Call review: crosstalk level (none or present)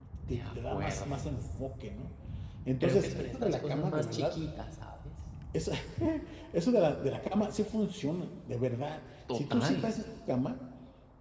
present